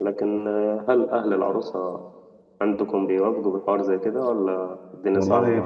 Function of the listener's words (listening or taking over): taking over